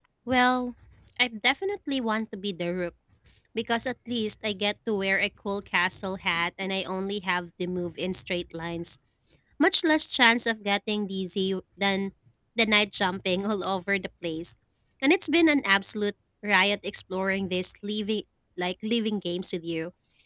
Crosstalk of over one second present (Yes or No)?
No